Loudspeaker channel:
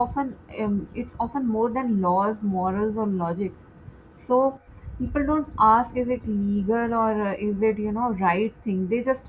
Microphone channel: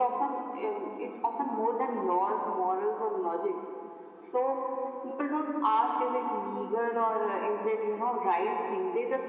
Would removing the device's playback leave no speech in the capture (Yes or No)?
Yes